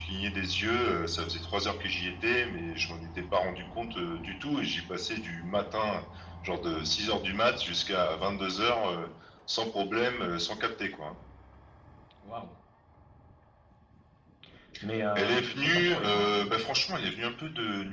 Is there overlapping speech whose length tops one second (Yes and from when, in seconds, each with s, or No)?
Yes, from 15.2 s